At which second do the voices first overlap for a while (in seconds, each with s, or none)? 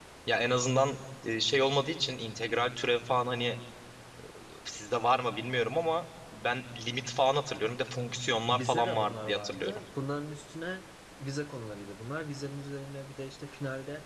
8.4 s